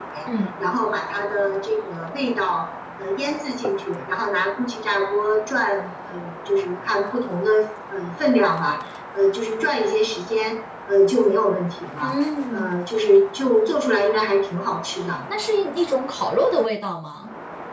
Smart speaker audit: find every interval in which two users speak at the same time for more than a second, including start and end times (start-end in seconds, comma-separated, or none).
none